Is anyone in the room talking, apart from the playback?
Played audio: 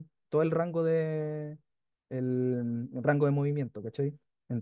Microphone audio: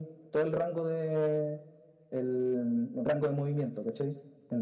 No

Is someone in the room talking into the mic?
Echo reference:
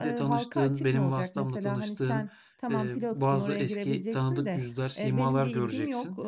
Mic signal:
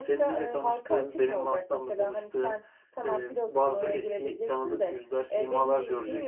No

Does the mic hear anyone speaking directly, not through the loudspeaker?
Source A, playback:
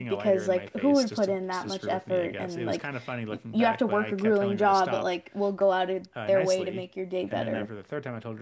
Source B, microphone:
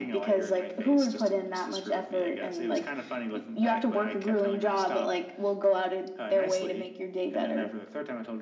No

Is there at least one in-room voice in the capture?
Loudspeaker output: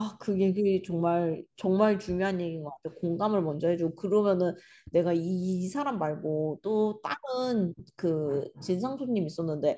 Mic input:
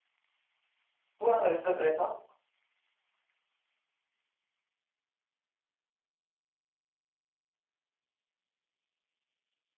Yes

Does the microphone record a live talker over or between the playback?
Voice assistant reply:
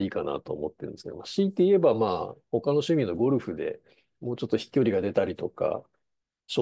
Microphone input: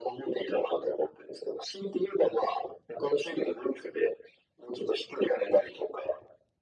No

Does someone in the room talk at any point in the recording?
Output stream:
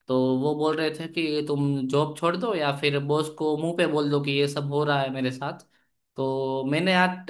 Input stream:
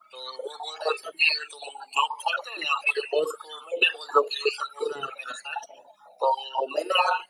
No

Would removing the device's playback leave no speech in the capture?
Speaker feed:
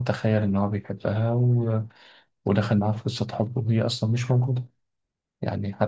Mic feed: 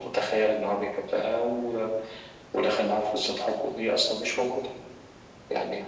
Yes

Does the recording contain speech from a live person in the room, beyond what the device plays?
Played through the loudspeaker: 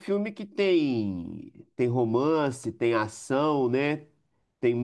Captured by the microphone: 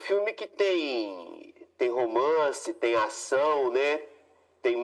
No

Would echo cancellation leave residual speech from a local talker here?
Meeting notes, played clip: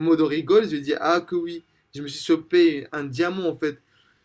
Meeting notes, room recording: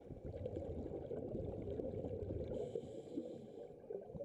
No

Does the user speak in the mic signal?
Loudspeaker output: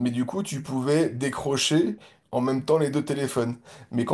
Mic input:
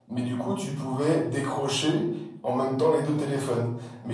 No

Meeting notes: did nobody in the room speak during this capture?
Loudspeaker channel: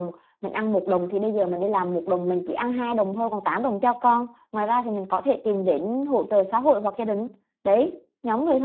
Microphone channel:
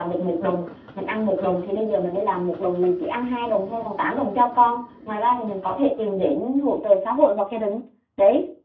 Yes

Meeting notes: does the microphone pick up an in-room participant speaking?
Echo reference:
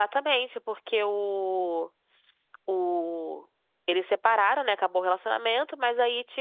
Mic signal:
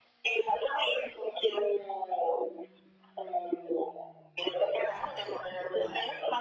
No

